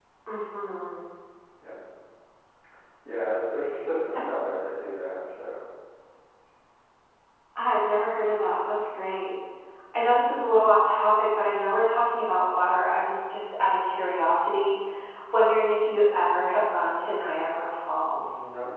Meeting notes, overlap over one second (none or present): none